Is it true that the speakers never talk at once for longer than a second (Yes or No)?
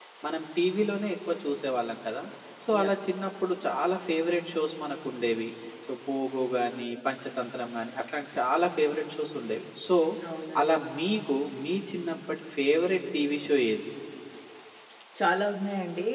Yes